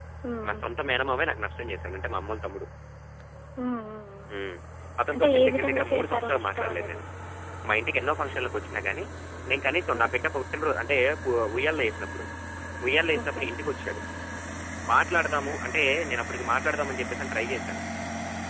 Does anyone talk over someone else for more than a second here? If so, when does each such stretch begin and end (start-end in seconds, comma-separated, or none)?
5.1-7.0